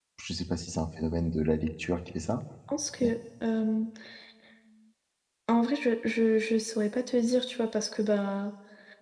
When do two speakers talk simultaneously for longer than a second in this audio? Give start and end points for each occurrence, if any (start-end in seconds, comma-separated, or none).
none